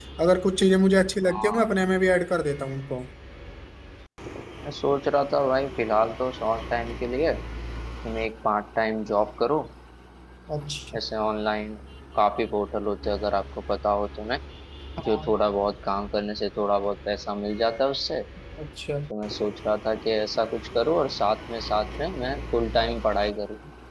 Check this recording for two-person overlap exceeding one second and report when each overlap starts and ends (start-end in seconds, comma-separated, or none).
none